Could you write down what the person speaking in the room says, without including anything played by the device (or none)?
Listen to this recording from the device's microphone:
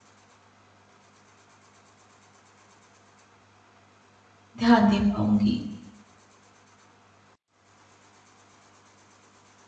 ध्यान दे पाऊँगी।